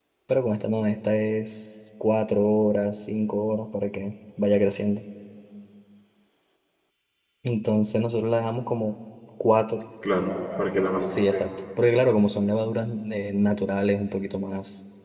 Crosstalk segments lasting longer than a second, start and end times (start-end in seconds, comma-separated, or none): none